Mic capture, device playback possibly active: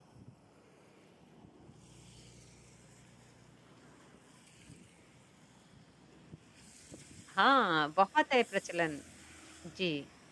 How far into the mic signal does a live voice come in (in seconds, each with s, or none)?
7.3 s